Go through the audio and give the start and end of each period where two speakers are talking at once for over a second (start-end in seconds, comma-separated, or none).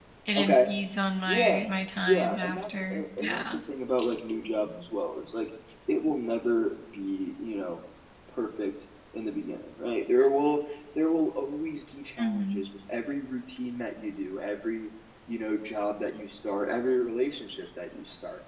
2.1-3.4